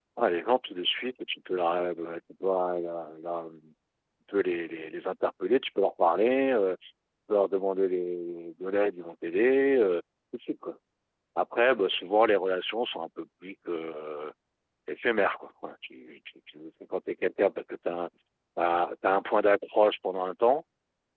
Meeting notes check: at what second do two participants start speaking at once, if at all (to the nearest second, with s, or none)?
none